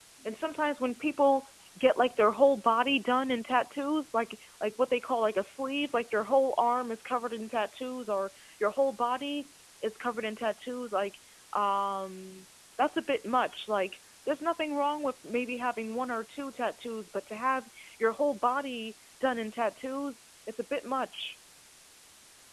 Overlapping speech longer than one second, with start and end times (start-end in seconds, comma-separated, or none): none